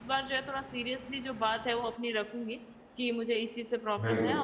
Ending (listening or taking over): listening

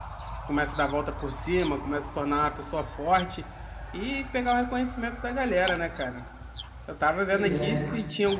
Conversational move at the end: listening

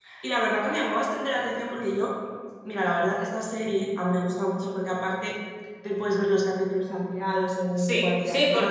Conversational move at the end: taking over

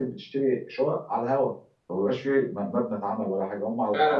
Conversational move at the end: taking over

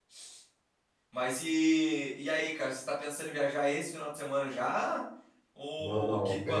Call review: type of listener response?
taking over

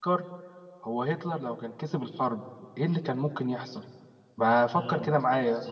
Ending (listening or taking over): taking over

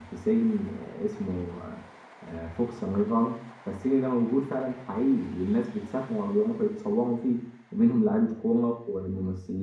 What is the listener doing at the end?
listening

